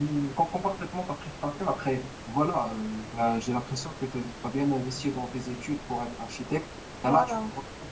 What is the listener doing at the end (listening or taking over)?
listening